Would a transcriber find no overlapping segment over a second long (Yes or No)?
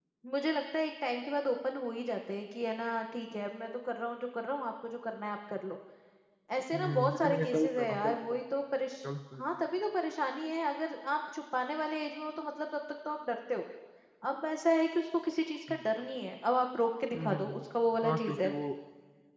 No